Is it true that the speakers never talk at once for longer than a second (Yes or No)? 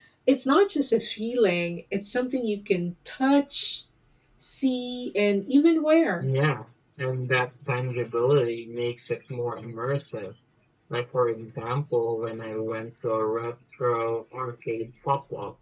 Yes